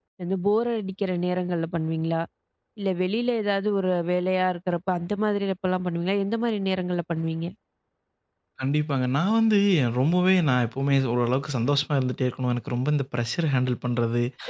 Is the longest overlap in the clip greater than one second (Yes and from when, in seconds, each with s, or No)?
No